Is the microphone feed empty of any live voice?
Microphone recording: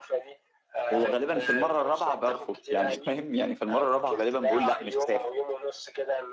No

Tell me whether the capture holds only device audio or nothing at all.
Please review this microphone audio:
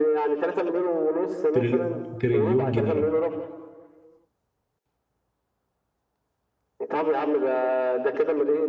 No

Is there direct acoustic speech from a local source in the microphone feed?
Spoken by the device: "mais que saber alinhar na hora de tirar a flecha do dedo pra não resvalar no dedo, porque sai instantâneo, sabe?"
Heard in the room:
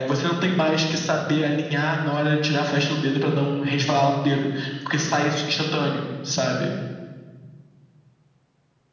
No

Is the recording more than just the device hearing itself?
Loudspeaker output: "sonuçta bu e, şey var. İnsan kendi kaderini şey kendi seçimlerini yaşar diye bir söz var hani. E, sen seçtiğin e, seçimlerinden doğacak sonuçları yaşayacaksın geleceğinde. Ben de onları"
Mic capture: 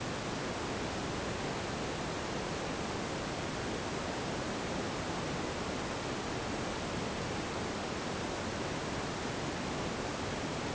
No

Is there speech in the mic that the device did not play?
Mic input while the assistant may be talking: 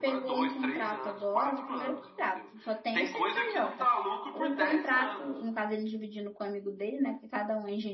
Yes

